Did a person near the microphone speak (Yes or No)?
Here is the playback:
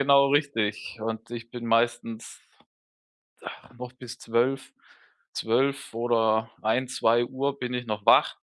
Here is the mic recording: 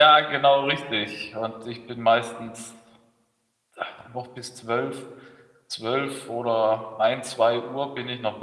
No